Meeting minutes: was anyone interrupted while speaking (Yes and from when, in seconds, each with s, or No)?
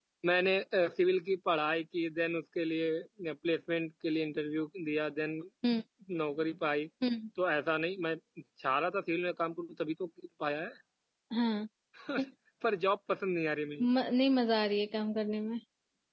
No